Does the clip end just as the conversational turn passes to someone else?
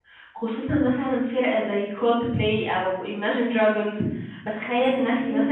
No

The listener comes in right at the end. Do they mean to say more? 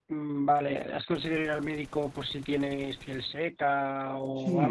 Yes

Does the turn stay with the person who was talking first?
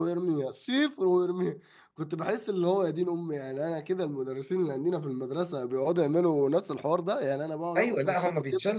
No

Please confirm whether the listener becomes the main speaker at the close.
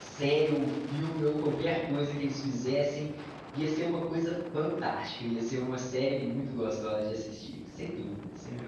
Yes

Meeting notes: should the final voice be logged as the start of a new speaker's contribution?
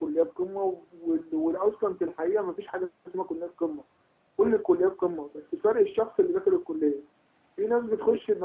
No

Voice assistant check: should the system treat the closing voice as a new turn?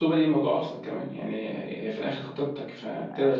Yes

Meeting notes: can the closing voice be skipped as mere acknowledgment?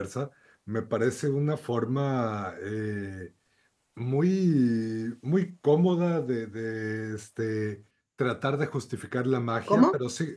Yes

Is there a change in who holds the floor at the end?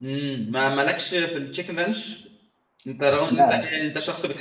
No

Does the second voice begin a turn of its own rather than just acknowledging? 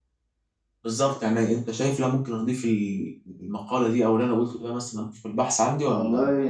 Yes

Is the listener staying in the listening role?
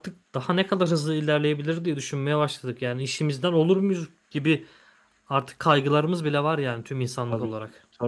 No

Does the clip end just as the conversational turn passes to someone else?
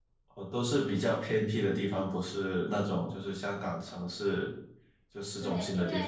Yes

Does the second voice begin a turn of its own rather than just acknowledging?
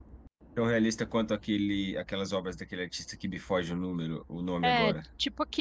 Yes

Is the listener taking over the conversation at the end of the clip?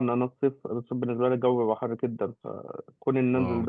No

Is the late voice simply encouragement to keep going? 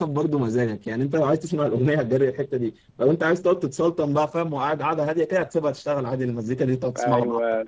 No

